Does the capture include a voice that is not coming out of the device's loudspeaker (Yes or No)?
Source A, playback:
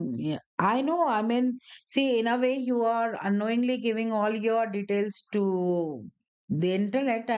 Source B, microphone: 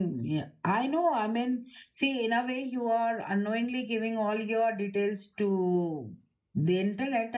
No